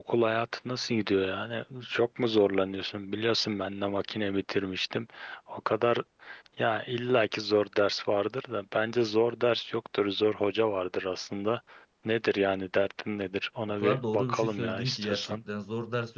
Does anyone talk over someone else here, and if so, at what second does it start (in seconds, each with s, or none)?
13.8 s